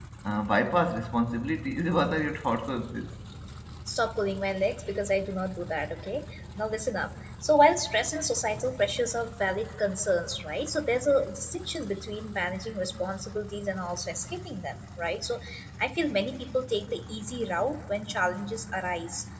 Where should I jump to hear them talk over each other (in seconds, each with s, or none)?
none